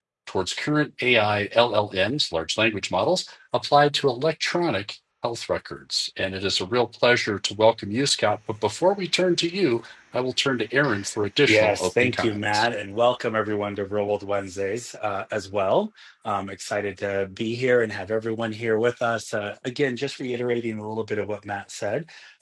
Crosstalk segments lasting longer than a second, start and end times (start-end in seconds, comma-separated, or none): 11.5-12.7